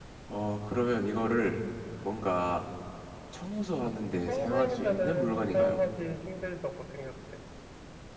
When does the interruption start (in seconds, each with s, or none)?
4.3 s